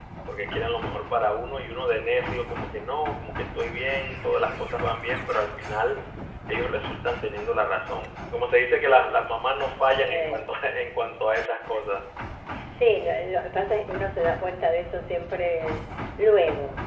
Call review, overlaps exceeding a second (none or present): none